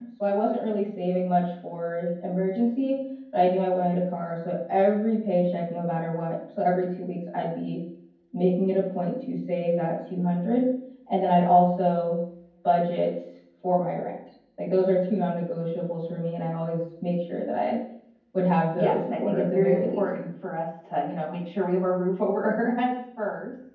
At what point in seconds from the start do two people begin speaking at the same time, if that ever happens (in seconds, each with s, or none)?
18.8 s